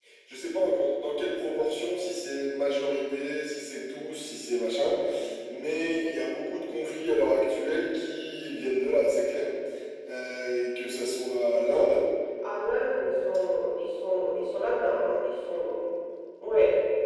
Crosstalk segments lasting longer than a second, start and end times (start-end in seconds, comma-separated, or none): none